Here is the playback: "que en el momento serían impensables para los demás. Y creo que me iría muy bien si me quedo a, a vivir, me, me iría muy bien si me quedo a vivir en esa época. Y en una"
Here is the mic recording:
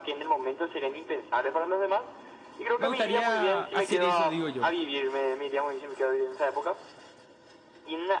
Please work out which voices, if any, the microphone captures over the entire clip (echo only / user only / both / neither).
both